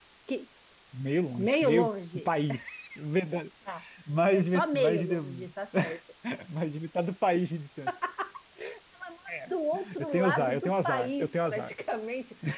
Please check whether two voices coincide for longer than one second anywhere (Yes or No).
Yes